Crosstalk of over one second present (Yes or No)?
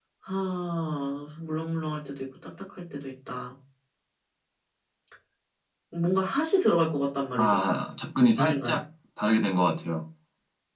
No